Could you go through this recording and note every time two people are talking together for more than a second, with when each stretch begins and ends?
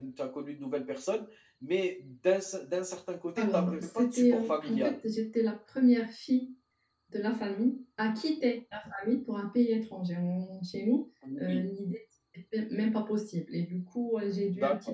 3.4-5.0

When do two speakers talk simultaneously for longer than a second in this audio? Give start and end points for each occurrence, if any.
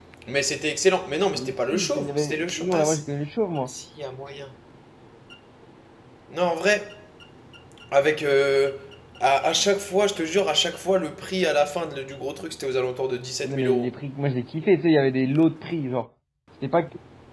1.3-3.0

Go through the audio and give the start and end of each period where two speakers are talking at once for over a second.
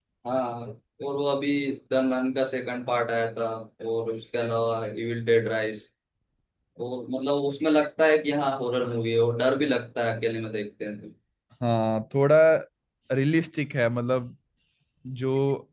none

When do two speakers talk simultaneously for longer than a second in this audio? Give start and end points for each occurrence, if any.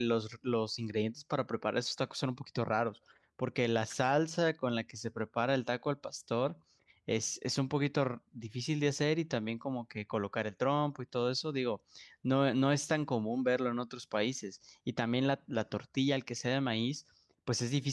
none

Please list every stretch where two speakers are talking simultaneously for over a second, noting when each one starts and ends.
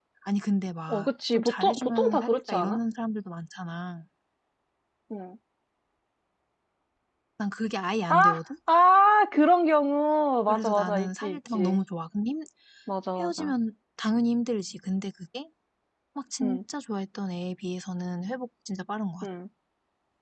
0.9-2.8, 10.5-11.8

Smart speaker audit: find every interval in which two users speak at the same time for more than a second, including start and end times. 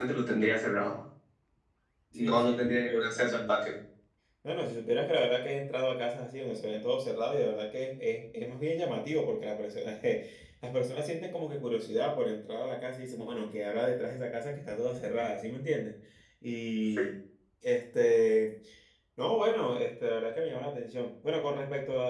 2.2-3.7

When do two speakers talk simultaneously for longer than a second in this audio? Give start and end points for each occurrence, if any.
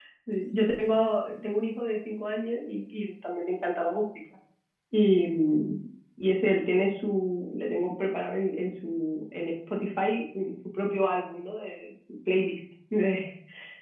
none

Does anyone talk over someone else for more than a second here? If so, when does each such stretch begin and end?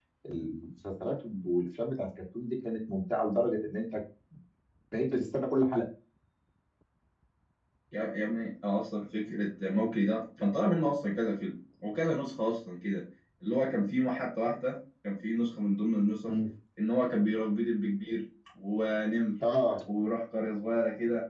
none

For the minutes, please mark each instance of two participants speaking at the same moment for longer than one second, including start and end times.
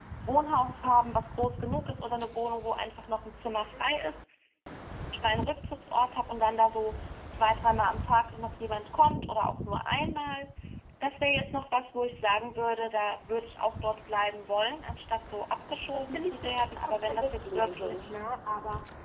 15.9-18.0

